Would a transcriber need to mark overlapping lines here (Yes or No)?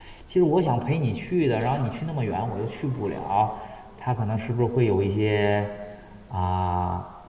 No